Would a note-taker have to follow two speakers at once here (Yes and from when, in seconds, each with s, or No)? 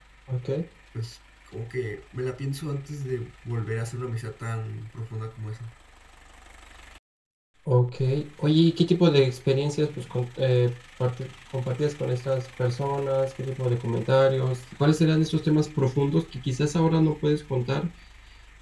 No